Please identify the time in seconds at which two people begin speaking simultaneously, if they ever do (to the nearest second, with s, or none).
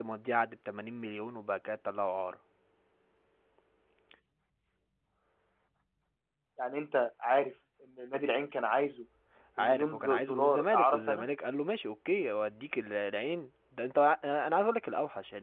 10 s